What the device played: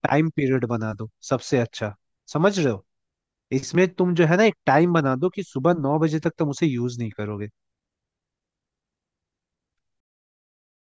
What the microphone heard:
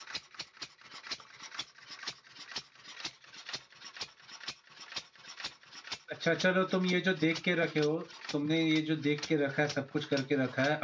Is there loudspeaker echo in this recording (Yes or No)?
No